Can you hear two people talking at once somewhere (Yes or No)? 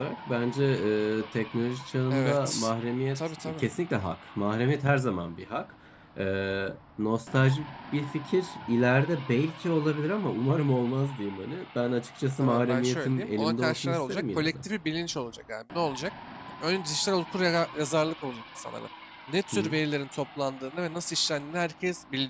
Yes